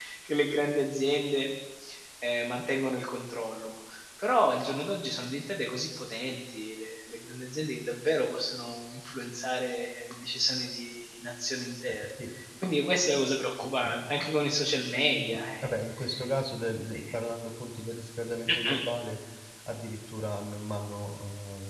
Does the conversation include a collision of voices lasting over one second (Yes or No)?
No